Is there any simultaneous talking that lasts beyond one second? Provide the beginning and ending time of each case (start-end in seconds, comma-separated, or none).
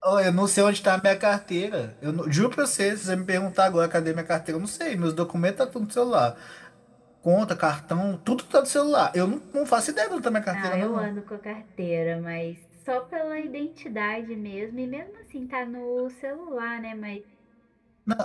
none